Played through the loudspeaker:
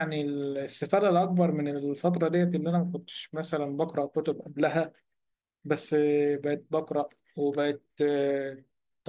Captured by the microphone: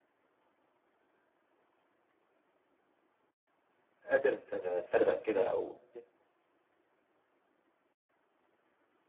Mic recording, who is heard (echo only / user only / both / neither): user only